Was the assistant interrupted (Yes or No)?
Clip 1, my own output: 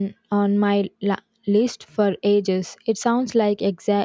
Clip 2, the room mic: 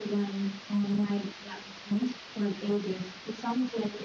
No